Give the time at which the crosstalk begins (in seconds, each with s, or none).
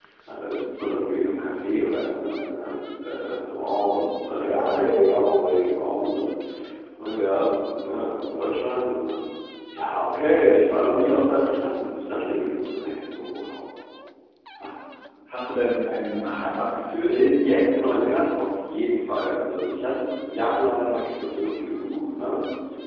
none